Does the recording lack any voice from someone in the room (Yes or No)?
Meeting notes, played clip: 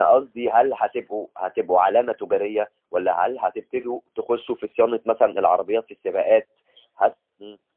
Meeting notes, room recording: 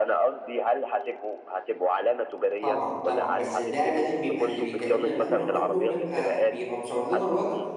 No